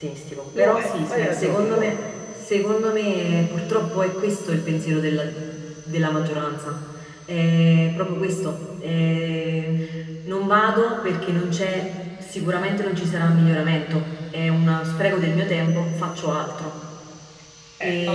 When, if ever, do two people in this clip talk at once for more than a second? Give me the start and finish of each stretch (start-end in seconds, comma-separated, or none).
0.6-1.9